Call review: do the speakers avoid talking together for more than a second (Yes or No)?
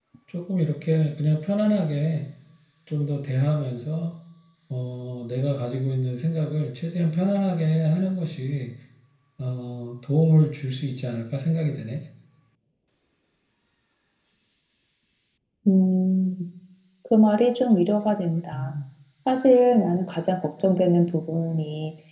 Yes